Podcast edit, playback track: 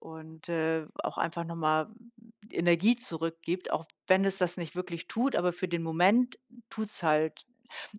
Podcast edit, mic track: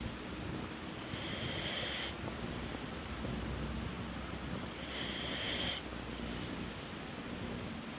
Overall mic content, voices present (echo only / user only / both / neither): neither